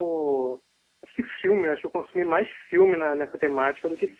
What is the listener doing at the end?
taking over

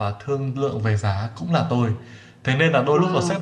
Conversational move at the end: listening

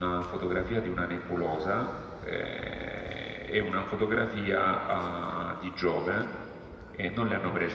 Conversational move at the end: listening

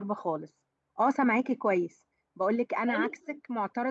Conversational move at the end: listening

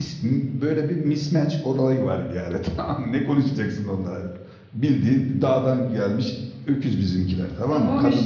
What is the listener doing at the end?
taking over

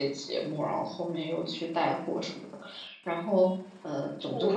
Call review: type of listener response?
taking over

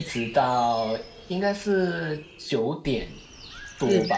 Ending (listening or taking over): listening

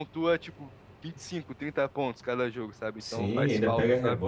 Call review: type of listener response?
taking over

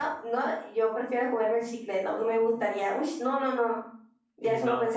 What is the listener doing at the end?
taking over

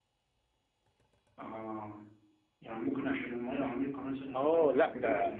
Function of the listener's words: taking over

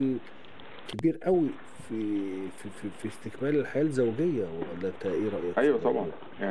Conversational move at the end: taking over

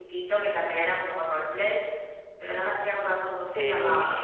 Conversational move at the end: taking over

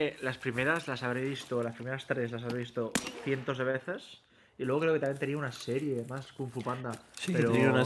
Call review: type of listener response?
taking over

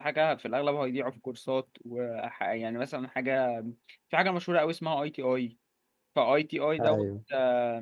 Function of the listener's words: listening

